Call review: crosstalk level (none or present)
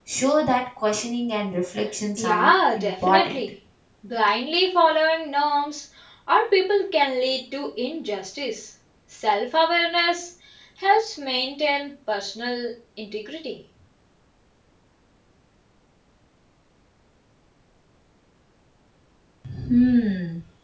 present